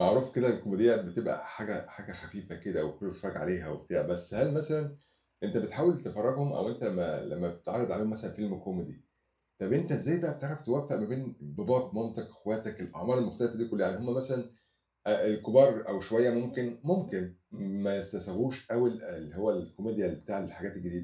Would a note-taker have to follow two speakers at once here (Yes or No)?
No